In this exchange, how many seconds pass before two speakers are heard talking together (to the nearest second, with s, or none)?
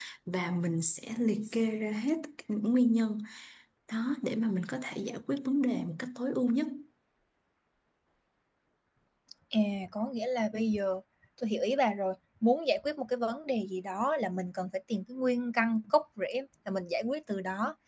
none